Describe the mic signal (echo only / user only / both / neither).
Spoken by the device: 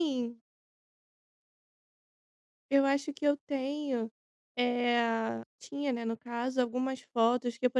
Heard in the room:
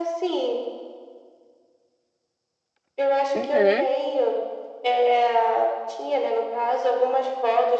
both